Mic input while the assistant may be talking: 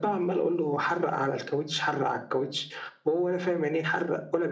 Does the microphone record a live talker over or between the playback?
No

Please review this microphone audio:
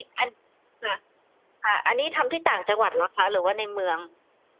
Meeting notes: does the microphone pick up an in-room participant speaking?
No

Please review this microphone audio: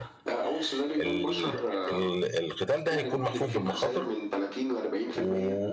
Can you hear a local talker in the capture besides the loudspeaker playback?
Yes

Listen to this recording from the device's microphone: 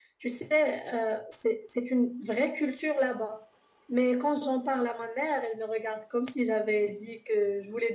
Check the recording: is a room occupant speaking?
No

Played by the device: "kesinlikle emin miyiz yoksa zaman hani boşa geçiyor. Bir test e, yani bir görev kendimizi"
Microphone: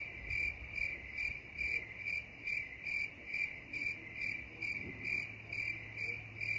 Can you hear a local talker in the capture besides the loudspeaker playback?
No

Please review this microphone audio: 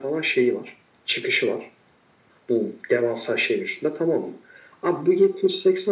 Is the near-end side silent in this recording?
Yes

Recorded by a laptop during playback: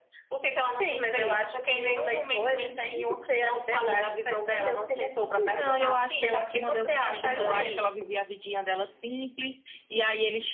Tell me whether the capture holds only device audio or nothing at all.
No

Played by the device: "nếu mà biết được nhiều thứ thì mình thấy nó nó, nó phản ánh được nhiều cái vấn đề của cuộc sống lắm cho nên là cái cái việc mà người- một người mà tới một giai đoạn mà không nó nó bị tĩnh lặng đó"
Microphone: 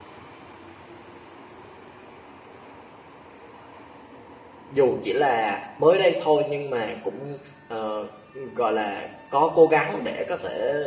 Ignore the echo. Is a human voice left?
Yes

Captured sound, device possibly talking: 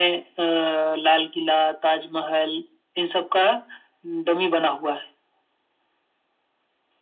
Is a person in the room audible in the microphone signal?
No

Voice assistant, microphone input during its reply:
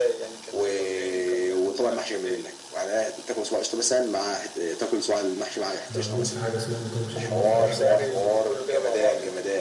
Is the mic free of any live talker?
No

